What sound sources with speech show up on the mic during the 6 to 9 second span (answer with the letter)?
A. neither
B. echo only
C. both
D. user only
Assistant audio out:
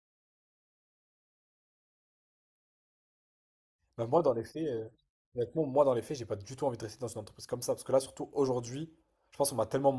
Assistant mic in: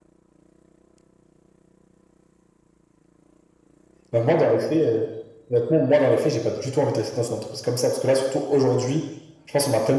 B